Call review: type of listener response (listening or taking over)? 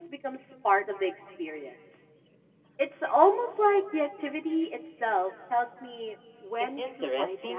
taking over